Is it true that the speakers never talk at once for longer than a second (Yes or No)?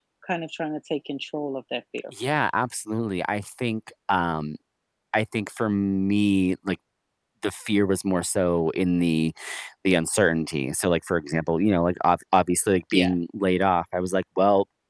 Yes